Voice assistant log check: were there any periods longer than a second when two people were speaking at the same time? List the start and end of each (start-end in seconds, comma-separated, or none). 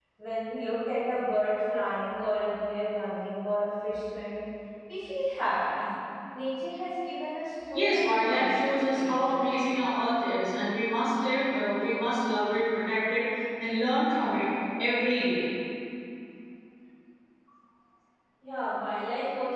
7.7-9.5